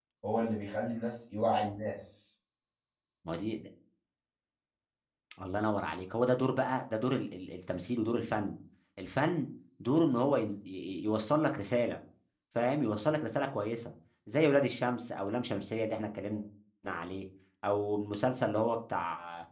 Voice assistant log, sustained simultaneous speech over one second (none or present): none